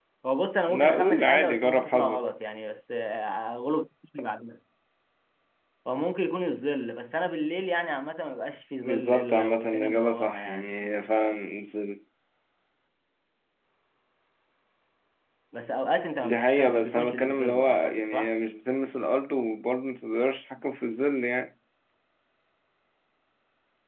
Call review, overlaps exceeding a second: present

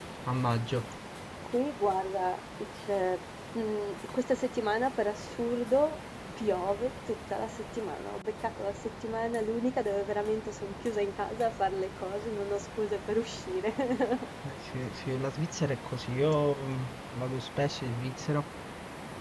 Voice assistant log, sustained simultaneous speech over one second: none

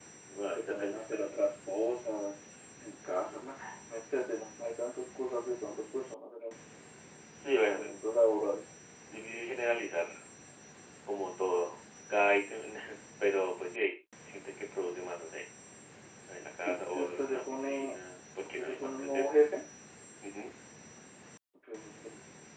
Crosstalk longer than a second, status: present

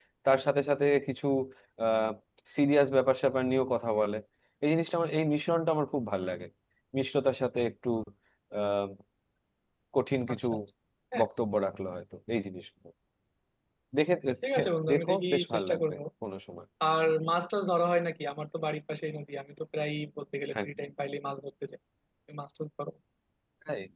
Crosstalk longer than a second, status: present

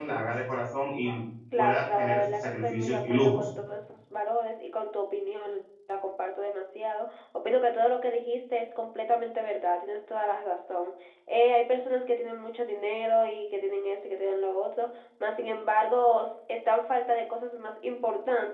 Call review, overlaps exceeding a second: present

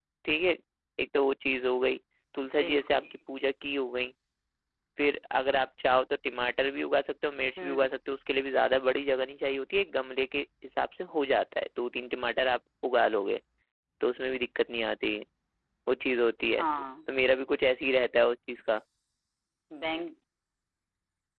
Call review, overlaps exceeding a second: none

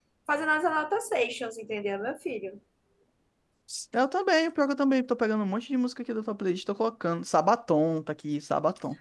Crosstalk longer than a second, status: none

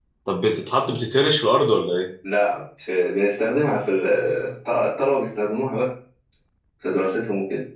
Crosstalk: none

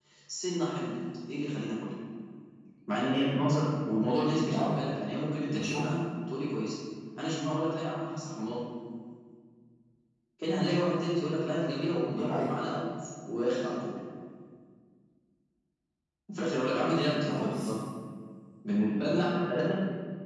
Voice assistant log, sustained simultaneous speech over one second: none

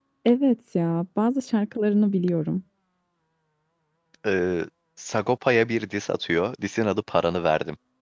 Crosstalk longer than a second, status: none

